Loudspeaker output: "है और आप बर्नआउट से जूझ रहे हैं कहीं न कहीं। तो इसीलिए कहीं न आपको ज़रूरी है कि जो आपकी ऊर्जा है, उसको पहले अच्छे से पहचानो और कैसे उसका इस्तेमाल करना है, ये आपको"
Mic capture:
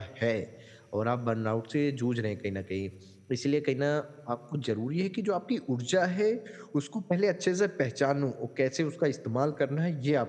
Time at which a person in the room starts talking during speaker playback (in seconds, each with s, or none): none